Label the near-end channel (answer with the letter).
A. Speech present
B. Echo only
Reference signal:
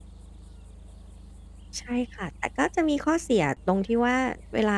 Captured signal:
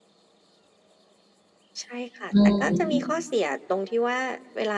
A